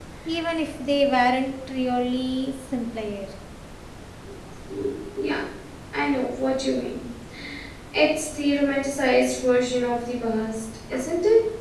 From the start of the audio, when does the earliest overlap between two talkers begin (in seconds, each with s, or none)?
none